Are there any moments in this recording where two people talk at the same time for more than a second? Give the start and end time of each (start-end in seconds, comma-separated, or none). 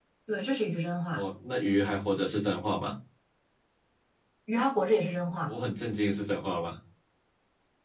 none